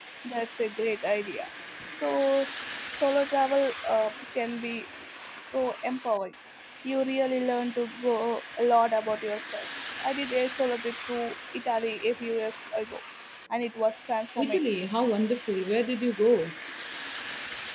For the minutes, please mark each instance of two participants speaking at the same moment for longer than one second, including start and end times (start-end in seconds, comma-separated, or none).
none